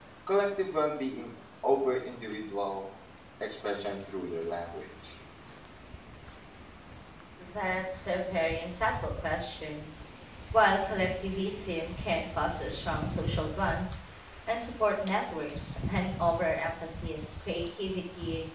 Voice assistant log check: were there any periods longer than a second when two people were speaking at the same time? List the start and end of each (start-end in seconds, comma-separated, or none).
none